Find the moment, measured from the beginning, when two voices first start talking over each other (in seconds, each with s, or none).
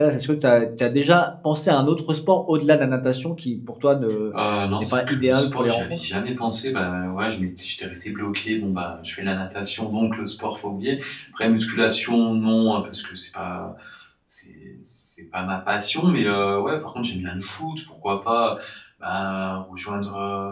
4.8 s